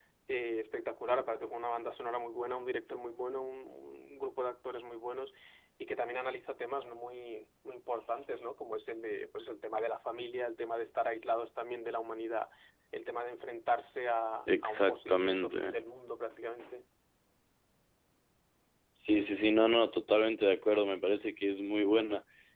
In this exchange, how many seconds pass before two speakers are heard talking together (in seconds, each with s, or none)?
14.5 s